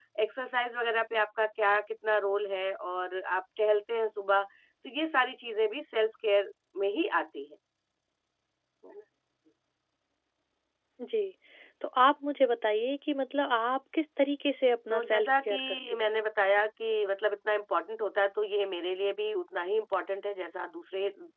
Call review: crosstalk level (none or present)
present